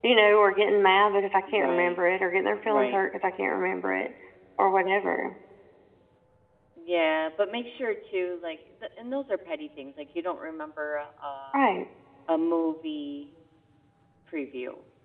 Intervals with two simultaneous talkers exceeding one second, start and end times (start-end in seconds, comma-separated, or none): none